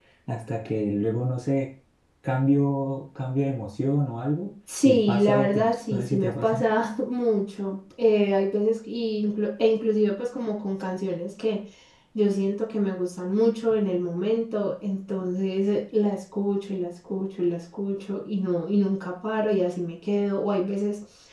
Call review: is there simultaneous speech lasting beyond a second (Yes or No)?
Yes